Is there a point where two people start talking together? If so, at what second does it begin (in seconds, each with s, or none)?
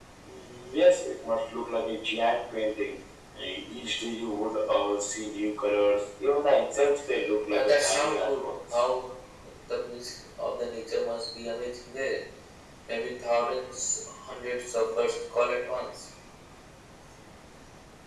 7.5 s